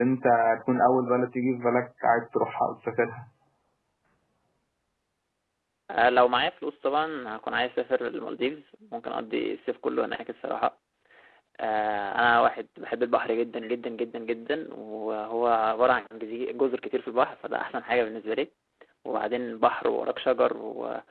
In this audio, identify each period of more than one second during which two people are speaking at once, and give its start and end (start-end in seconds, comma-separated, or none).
none